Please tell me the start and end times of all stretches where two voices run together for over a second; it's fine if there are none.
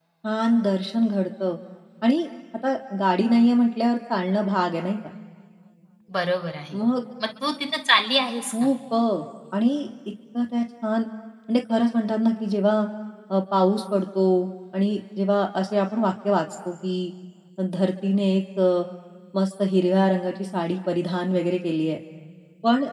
none

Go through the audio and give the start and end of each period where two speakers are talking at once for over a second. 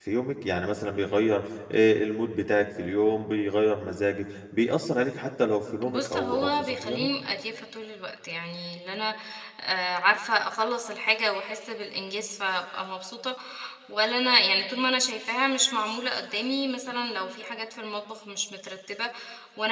5.9-7.1

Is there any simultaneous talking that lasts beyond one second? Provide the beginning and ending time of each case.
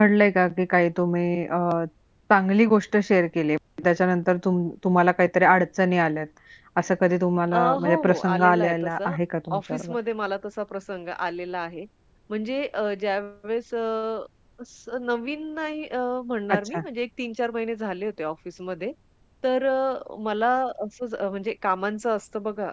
7.5-9.1

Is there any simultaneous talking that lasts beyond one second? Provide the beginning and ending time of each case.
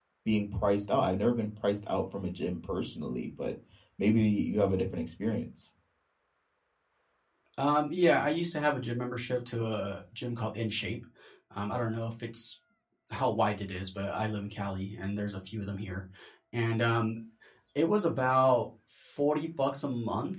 none

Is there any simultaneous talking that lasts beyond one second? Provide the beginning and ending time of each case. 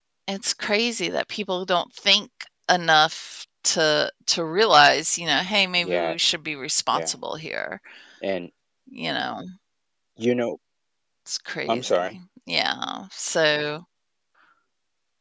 none

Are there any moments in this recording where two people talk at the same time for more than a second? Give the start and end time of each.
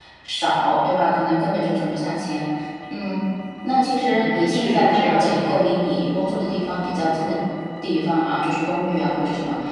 4.0-5.6

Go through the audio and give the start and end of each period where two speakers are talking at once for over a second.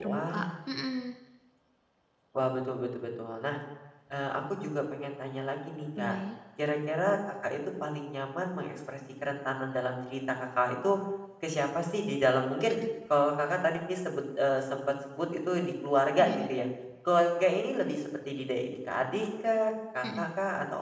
none

